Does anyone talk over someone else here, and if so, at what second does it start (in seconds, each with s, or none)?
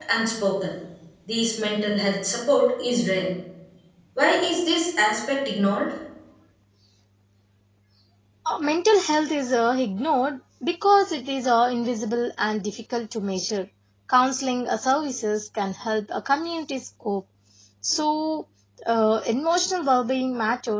none